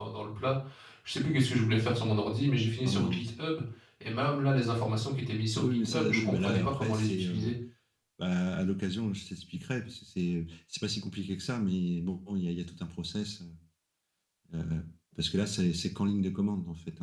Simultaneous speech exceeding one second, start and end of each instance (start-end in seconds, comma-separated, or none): 5.6-7.5